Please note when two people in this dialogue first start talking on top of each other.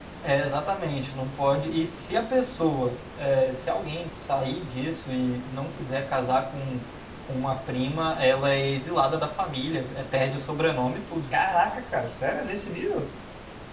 none

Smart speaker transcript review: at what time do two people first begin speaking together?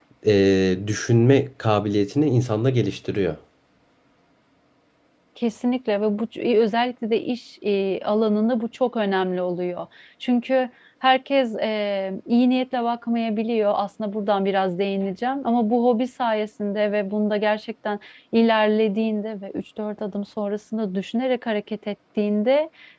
none

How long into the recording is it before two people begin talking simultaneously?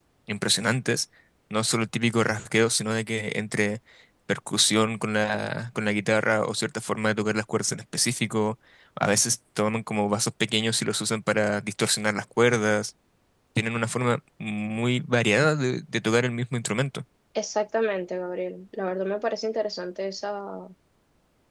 none

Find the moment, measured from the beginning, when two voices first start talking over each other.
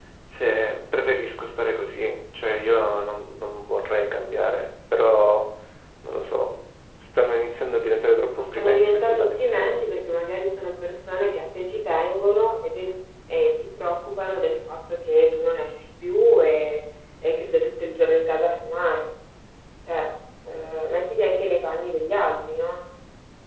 8.3 s

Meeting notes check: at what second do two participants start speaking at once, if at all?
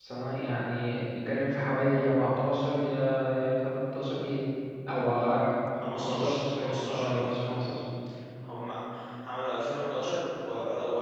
6.0 s

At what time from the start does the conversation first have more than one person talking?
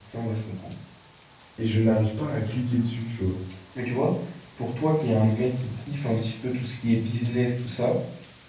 none

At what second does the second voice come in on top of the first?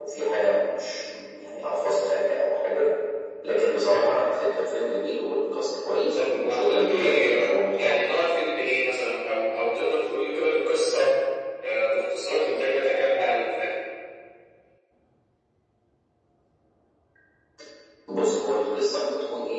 6.2 s

